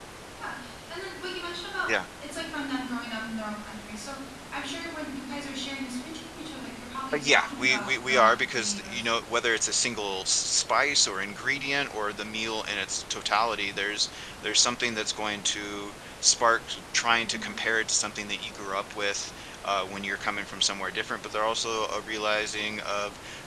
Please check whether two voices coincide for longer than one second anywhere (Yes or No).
Yes